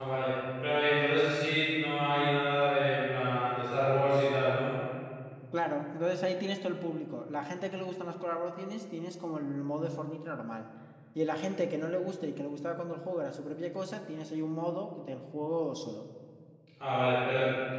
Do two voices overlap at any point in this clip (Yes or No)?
No